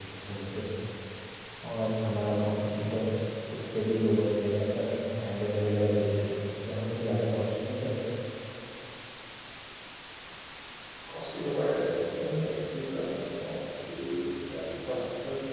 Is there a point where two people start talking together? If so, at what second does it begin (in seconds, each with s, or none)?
none